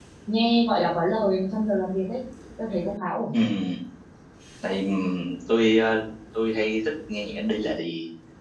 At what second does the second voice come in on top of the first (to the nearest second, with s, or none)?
none